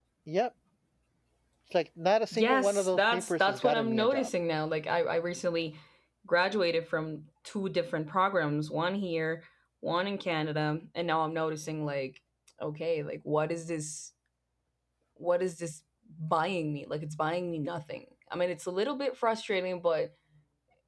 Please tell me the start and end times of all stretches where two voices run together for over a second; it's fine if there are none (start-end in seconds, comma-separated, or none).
2.3-4.3